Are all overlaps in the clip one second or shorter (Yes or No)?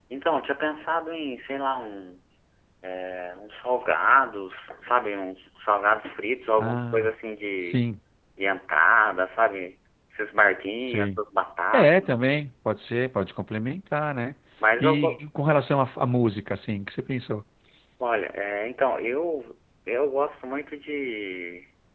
Yes